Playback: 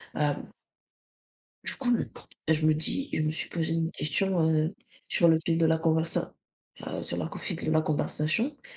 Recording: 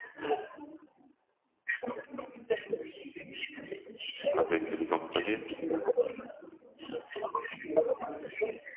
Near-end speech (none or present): present